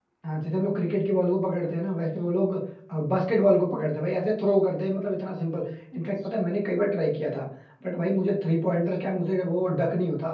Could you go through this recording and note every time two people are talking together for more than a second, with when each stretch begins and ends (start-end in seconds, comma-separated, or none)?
none